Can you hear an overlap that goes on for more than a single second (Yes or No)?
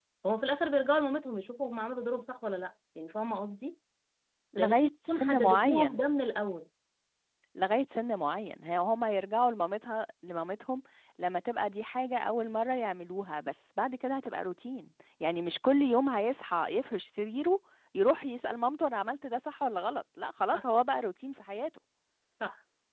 Yes